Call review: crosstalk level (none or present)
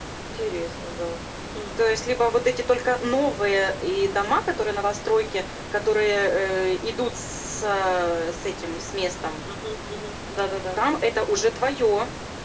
none